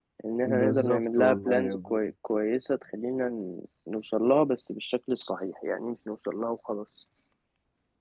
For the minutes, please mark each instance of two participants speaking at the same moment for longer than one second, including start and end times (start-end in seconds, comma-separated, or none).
0.6-2.0